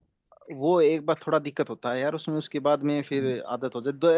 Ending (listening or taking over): listening